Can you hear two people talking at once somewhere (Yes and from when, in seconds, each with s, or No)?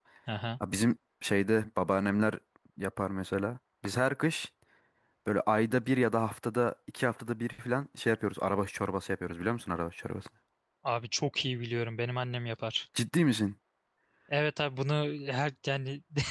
No